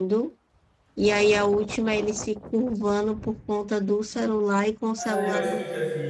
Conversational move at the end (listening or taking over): taking over